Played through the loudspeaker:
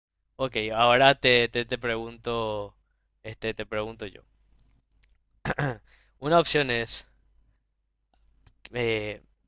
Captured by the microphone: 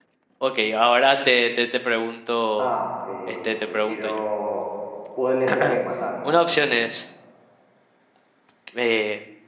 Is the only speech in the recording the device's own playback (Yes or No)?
No